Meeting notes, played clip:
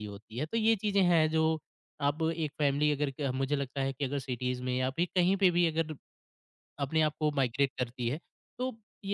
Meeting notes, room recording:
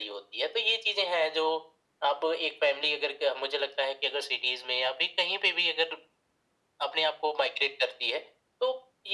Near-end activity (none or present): none